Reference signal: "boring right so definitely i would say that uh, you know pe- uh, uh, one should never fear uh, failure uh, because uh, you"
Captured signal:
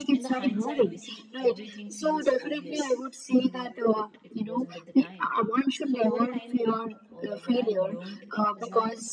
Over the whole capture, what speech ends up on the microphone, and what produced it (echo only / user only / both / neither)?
both